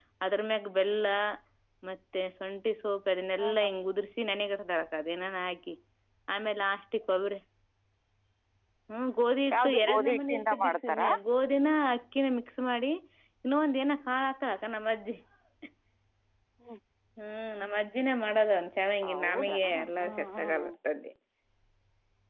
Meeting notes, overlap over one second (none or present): present